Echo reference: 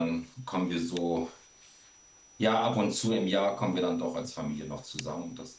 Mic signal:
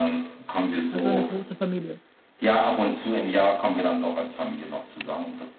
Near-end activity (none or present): present